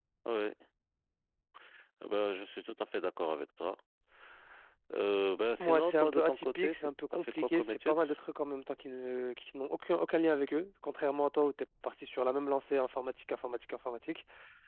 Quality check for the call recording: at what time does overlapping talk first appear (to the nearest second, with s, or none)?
6 s